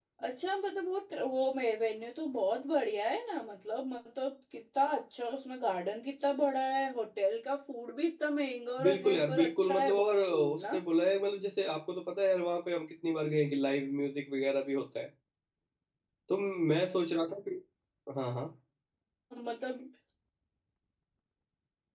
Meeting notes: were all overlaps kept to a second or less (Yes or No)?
No